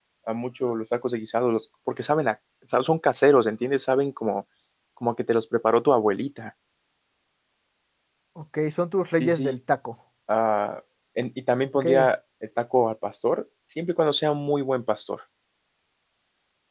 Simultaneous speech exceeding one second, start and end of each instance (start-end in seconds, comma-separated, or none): none